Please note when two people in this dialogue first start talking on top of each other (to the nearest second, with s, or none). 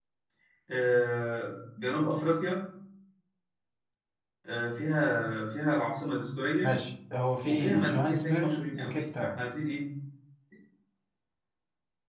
7 s